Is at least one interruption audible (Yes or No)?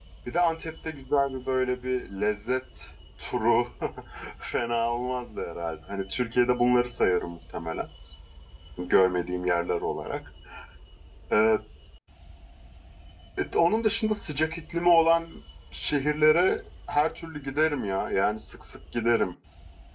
No